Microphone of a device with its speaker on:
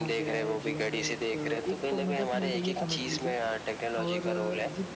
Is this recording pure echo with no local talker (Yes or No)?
No